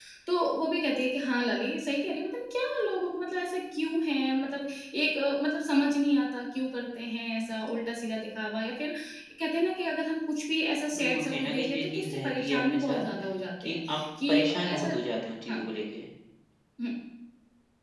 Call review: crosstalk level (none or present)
present